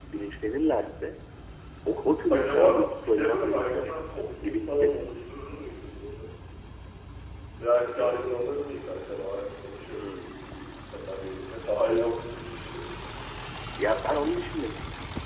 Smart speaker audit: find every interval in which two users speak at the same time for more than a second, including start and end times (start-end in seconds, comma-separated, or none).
2.3-4.9